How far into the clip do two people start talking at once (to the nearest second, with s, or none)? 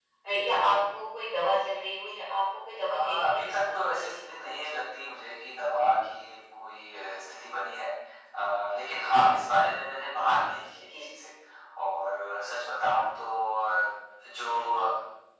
3 s